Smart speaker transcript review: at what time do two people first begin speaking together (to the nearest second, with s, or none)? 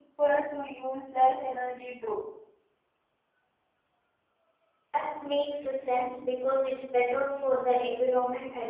none